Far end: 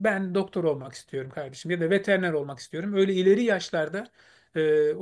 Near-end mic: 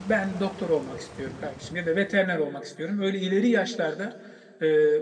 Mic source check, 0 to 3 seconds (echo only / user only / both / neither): echo only